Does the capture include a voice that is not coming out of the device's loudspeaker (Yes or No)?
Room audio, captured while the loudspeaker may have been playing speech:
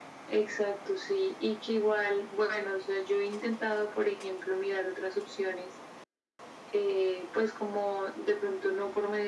No